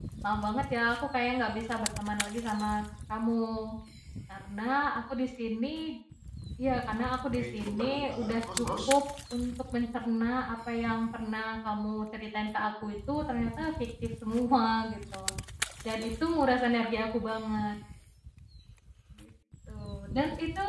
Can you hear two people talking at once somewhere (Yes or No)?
Yes